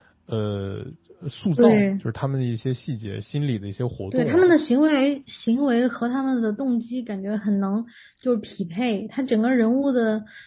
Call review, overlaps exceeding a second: none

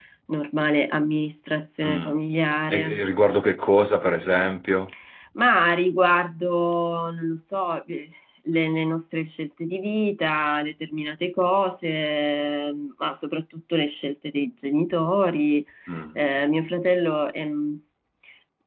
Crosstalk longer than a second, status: none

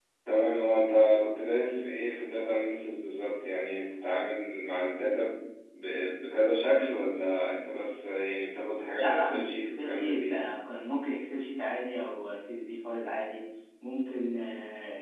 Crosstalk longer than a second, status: present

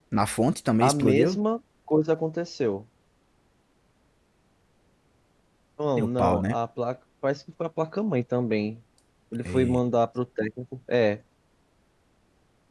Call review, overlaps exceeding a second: none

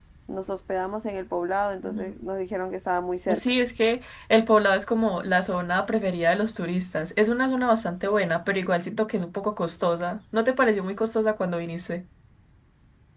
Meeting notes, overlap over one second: none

